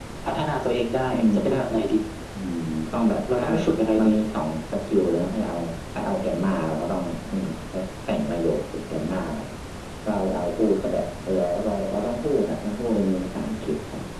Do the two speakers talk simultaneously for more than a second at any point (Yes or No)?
No